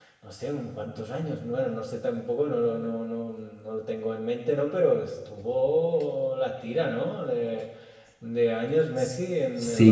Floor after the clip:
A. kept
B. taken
B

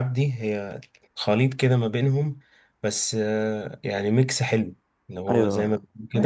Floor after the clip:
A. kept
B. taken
B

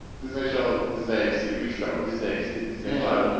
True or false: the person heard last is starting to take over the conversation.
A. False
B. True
B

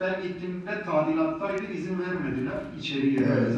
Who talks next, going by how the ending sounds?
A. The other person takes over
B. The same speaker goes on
A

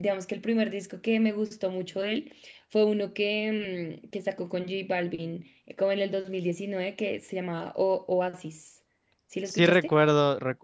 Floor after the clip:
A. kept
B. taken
B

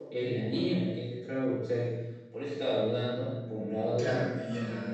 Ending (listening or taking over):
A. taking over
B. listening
A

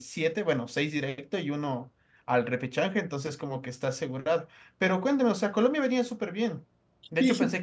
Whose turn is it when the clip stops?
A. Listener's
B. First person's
B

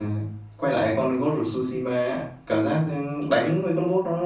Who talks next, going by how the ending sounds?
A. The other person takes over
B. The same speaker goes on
B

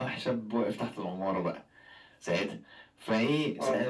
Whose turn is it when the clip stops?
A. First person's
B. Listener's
A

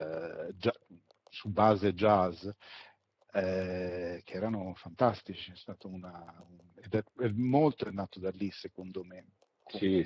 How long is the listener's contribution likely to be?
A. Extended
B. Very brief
A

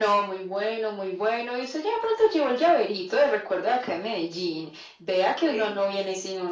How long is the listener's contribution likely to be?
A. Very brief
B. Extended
A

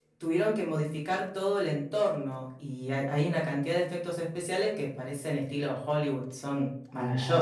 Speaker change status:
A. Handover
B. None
A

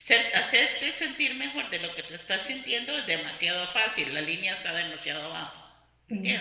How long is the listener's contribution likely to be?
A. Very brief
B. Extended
B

